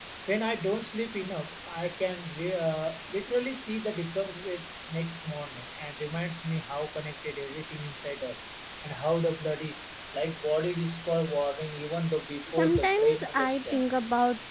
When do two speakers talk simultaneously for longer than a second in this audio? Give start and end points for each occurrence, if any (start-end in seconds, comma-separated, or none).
12.6-13.8